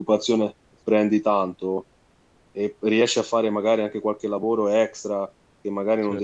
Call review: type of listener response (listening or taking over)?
listening